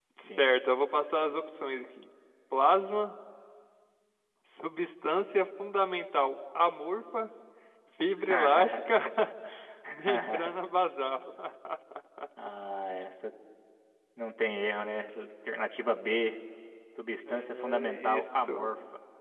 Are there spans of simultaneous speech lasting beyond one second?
Yes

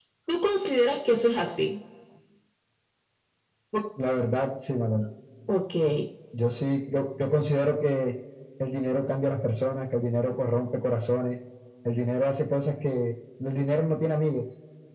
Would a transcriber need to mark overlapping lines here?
No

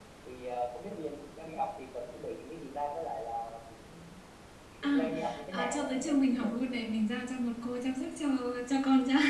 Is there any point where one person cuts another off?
Yes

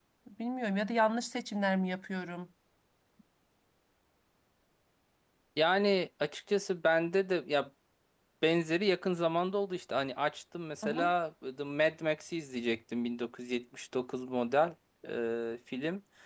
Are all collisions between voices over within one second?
Yes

